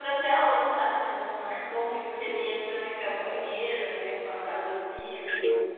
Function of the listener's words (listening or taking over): listening